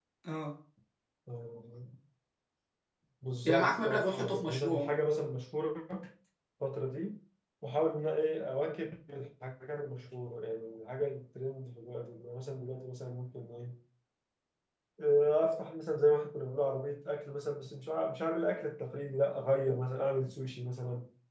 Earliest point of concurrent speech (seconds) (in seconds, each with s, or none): 3.4 s